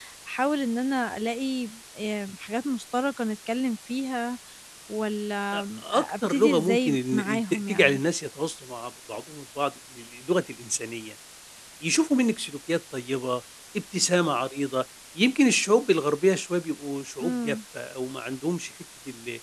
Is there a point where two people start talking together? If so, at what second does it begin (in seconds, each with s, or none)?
6.0 s